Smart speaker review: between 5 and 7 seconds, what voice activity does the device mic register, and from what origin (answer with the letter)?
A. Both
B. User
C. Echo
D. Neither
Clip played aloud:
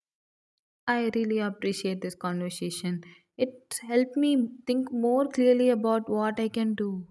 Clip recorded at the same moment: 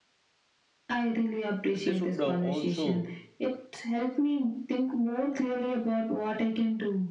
C